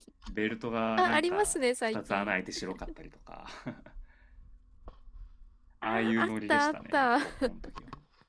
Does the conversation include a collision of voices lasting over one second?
Yes, from 1.0 s

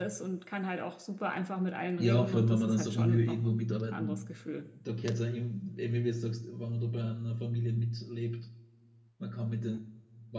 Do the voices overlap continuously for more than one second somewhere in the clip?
Yes, from 2.0 s

